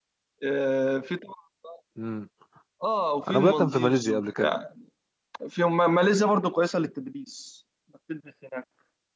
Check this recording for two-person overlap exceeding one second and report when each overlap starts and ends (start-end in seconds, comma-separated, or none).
3.3-4.5